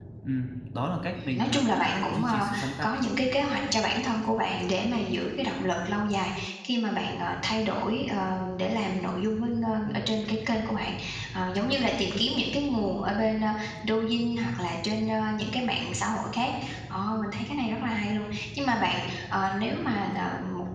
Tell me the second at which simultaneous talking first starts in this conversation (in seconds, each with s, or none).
1.2 s